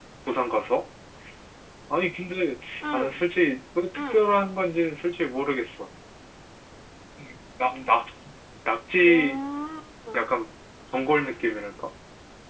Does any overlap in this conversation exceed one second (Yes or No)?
No